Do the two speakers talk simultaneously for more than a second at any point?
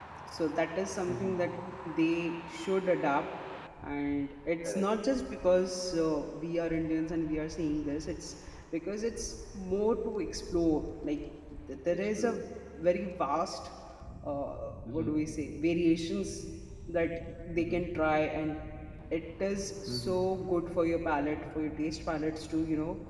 No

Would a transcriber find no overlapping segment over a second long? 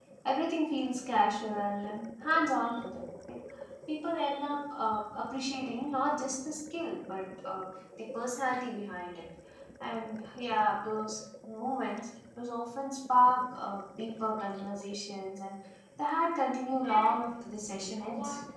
No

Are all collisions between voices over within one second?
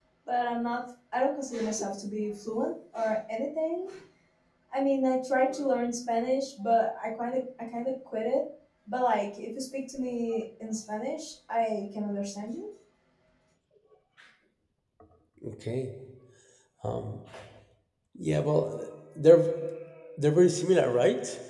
Yes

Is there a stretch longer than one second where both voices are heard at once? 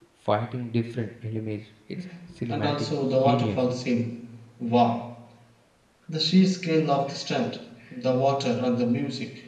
Yes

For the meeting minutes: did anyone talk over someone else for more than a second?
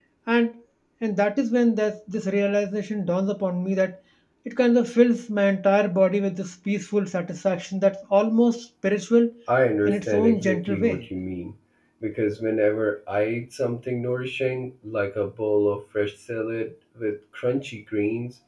Yes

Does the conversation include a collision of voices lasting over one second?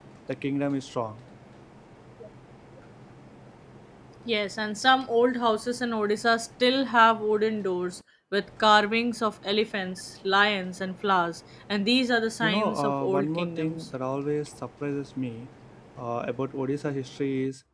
Yes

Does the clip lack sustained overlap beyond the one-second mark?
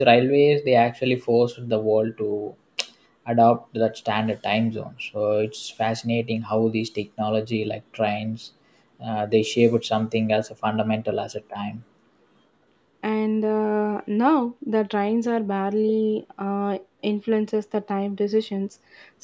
Yes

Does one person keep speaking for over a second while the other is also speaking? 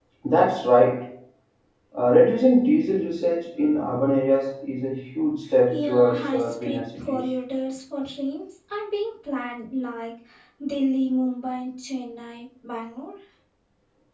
Yes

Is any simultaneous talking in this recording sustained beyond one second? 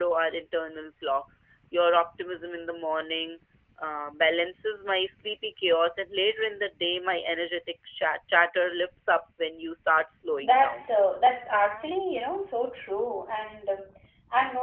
No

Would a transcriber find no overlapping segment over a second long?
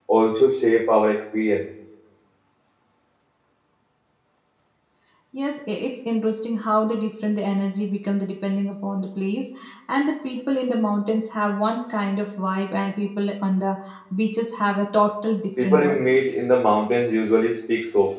Yes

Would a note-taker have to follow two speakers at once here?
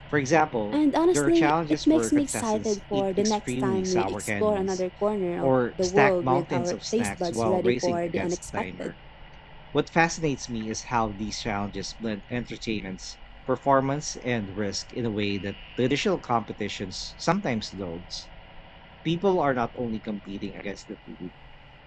Yes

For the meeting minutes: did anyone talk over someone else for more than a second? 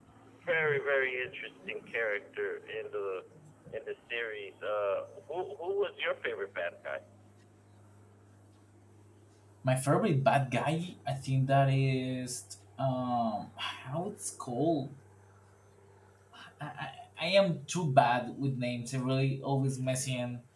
No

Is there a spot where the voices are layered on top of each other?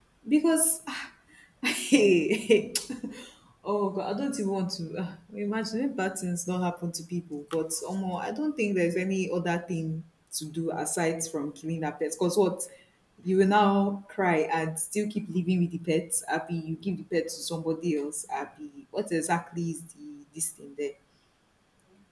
No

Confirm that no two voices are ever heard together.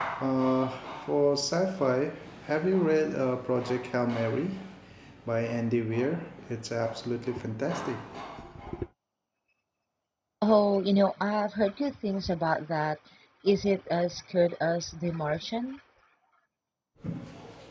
Yes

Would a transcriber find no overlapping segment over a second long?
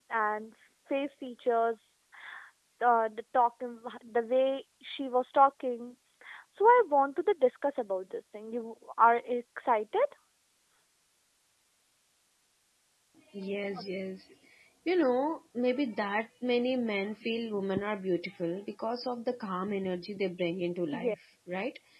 Yes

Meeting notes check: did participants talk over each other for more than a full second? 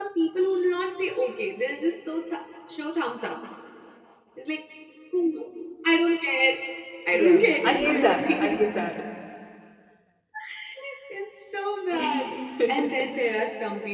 Yes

